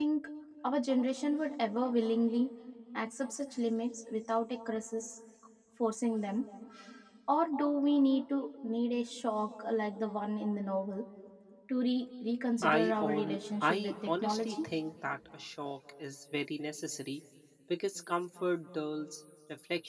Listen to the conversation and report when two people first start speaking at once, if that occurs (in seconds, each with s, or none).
12.6 s